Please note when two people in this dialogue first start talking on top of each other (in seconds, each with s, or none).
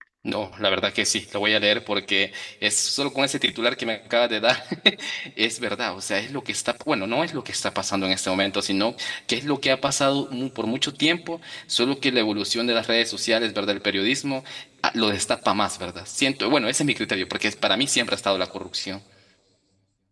none